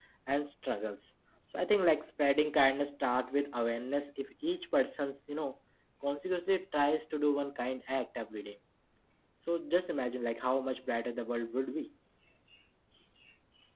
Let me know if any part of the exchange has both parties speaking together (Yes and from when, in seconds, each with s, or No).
No